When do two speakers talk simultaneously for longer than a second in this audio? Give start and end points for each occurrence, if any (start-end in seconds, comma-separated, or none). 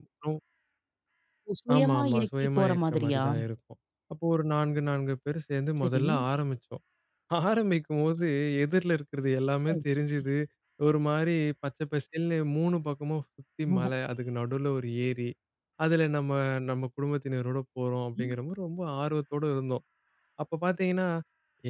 1.8-3.2